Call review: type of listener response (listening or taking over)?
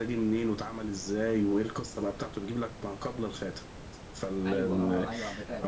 taking over